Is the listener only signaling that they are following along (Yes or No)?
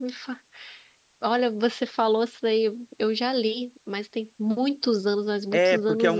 No